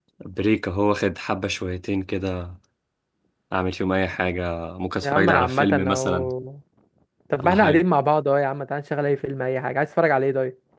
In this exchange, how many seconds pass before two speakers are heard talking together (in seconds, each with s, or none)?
5.0 s